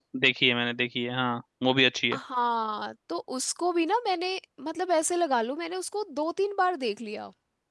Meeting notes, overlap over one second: none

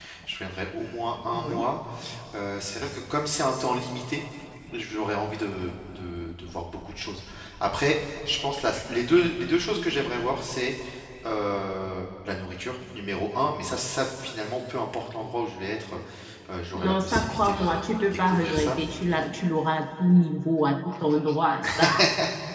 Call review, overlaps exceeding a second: present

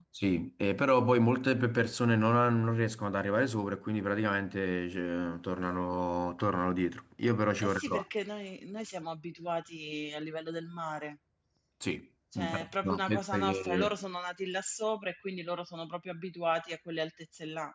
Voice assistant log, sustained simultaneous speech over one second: present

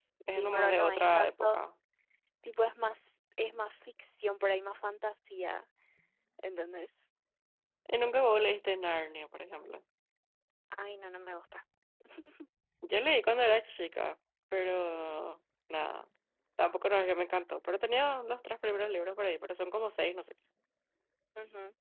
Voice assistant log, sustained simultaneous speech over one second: present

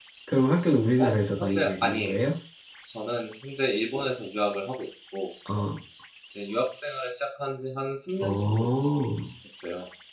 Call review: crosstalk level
present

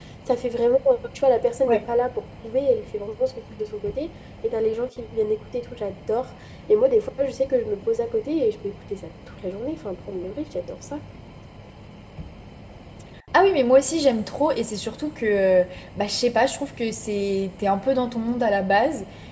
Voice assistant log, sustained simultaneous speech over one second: none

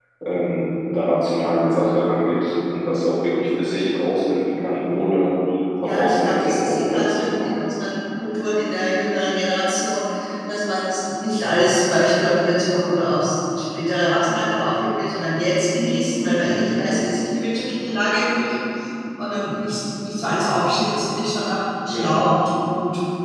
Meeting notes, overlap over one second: present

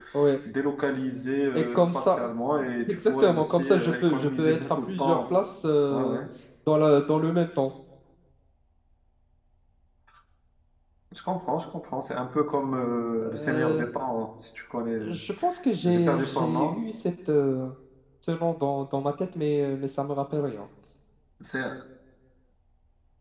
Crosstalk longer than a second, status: present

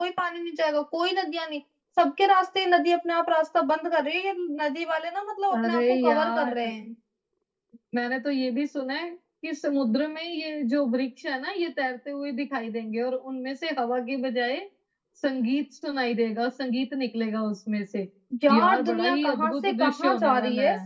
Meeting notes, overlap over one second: present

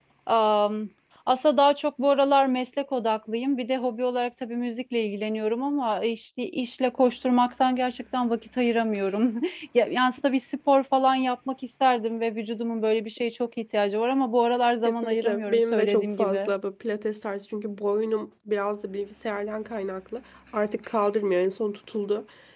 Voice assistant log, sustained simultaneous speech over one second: present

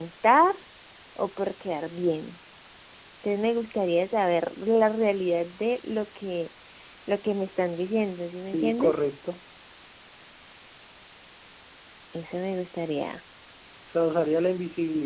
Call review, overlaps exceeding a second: none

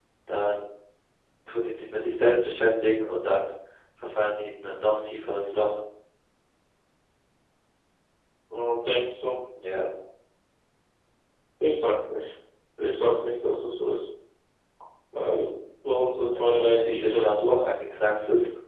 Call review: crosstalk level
present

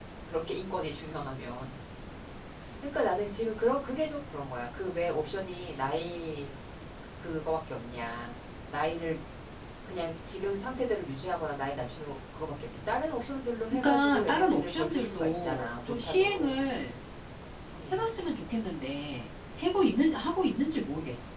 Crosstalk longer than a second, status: present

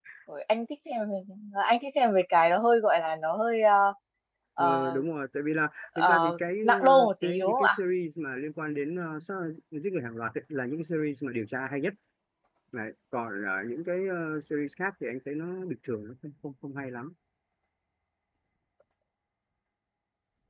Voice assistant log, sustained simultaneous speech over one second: present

